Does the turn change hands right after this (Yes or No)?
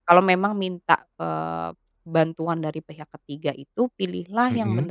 No